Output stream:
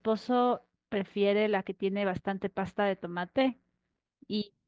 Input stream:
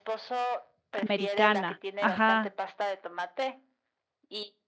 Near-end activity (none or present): present